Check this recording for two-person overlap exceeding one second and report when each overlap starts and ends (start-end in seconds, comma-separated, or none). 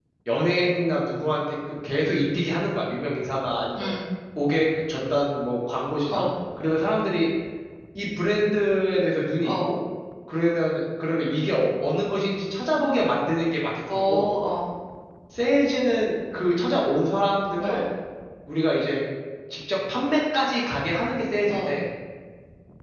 none